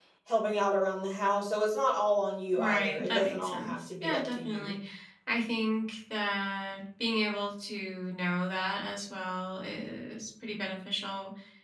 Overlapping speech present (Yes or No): Yes